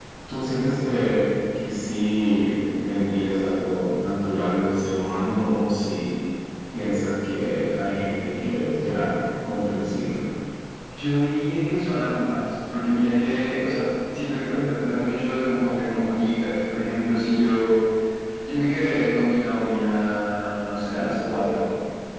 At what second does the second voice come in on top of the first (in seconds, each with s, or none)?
none